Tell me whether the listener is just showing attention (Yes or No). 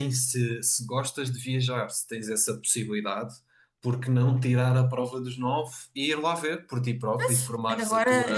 No